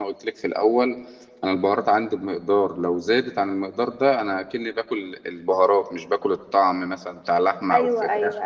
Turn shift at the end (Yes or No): Yes